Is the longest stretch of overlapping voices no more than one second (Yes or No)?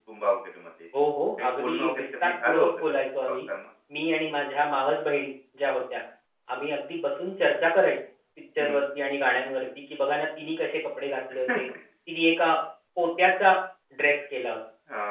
No